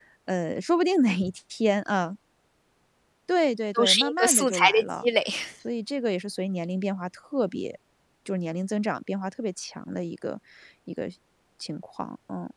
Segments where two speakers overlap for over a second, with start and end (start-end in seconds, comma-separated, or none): 3.8-5.0